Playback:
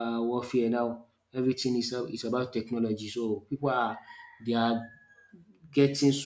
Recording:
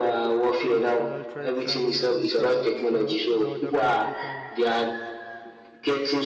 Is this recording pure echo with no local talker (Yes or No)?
No